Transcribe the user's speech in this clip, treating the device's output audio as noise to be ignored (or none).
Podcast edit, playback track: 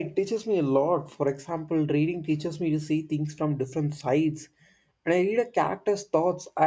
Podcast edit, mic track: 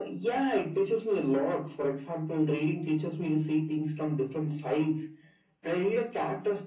none